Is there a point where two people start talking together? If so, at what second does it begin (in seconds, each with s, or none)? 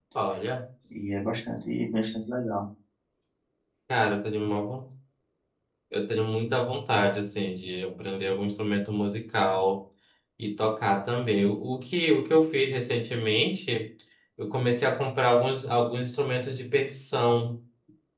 none